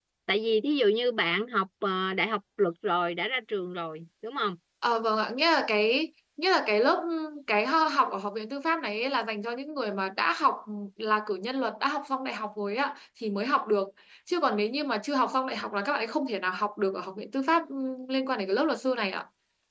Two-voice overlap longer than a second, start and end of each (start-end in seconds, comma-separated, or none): none